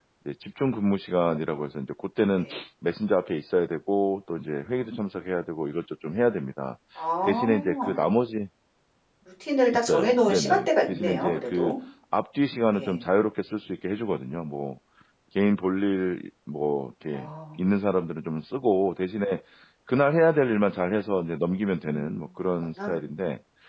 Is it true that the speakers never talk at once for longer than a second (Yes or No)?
No